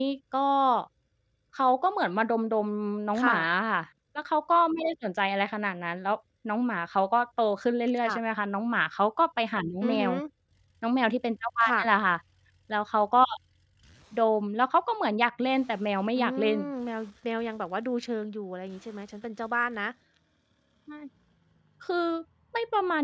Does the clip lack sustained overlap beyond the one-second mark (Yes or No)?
Yes